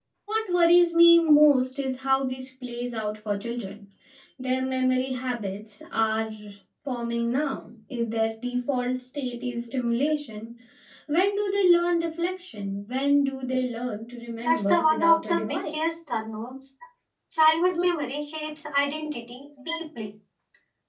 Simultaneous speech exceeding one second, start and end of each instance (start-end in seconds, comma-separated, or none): 14.4-15.8